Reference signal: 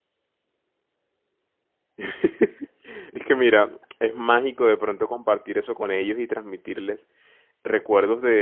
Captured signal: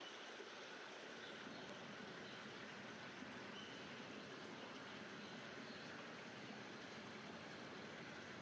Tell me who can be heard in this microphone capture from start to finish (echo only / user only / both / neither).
neither